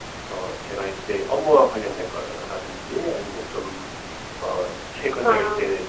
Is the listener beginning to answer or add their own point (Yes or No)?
No